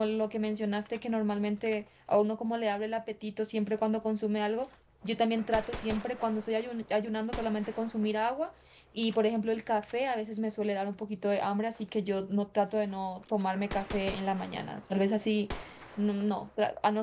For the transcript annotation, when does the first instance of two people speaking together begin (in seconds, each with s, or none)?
none